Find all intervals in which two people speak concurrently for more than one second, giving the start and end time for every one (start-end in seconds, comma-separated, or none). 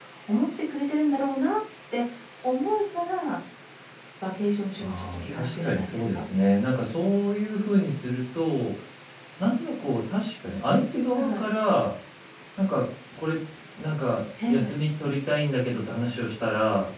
4.8-6.2